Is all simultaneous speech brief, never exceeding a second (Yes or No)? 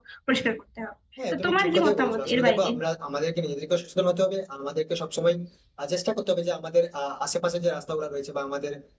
No